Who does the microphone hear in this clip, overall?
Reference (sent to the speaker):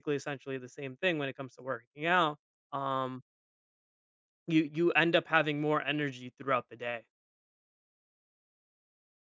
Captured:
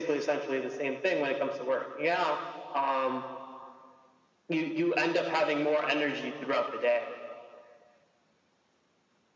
echo only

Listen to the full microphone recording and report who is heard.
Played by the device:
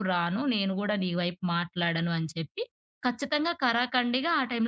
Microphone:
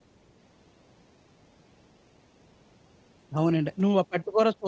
user only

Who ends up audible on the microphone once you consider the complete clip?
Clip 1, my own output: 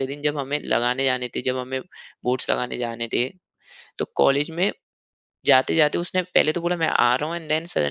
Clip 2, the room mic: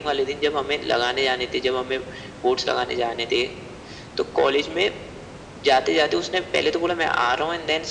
echo only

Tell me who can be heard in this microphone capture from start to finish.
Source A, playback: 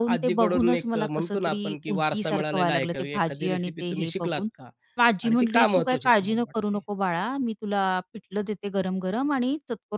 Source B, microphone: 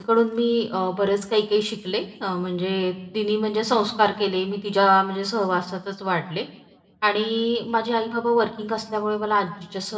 user only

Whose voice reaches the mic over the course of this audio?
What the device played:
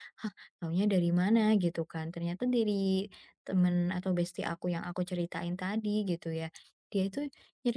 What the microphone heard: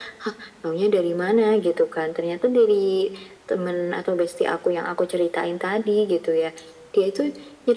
echo only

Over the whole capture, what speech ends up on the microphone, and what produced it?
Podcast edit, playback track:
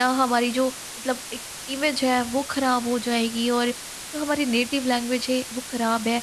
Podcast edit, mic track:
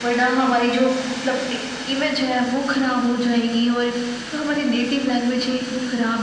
echo only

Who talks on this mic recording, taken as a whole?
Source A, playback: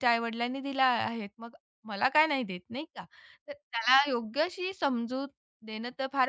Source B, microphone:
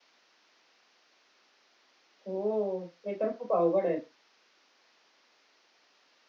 user only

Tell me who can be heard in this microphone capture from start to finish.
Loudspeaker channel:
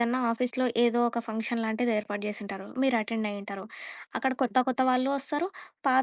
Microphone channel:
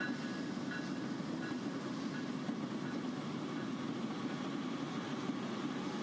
neither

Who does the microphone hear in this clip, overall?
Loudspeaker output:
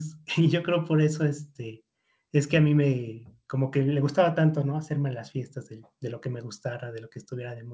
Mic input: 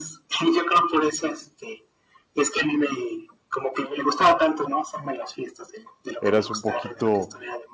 both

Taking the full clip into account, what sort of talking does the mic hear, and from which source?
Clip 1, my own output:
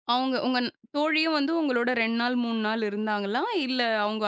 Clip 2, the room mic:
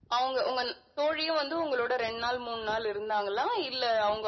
echo only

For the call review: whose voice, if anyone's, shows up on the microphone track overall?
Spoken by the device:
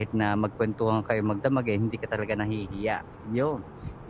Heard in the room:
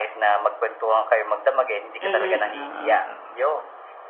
both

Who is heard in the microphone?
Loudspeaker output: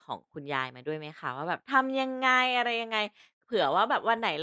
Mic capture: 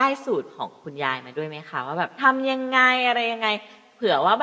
echo only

